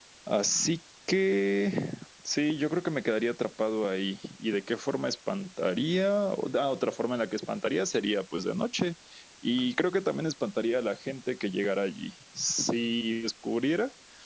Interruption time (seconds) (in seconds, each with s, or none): none